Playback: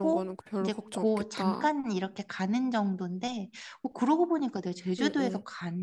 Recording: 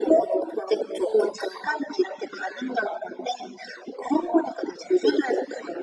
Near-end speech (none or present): none